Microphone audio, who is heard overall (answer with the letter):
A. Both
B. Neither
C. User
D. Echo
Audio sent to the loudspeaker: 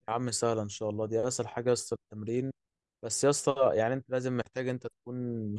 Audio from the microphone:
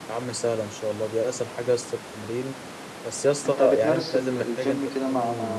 A